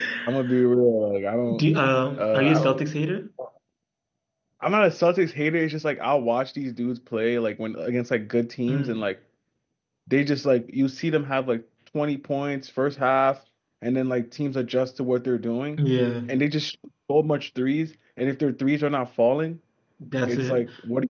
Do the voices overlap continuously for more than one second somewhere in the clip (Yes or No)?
No